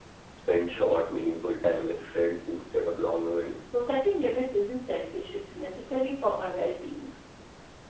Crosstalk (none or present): none